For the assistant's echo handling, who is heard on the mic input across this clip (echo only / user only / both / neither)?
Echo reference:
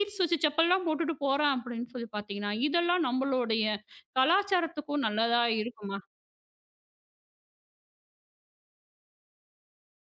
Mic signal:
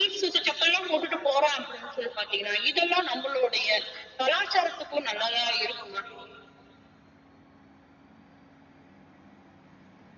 echo only